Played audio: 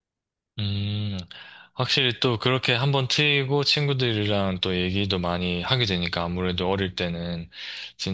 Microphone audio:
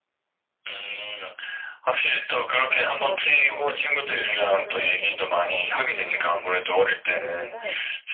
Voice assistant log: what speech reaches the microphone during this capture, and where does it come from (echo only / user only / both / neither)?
both